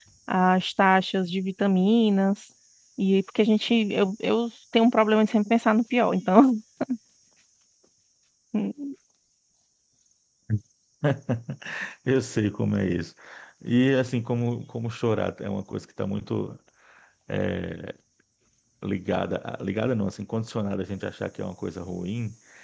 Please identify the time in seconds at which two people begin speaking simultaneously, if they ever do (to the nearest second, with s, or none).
none